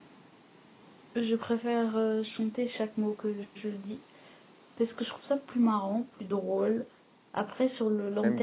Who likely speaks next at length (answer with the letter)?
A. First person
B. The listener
B